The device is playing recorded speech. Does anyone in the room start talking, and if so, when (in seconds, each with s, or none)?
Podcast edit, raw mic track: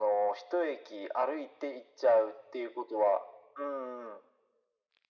none